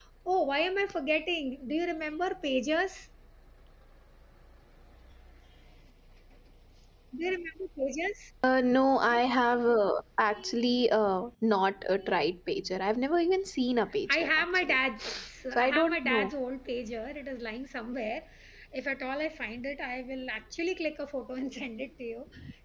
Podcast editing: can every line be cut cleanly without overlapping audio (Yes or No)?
No